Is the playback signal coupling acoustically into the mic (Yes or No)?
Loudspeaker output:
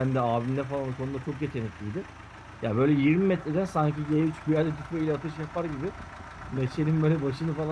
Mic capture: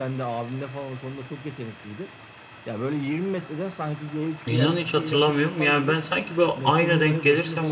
Yes